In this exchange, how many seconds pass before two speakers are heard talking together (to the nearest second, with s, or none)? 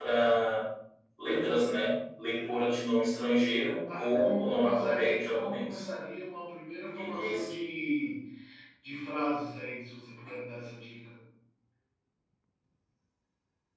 4 s